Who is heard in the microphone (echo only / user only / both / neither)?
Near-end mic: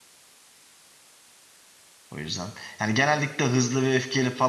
user only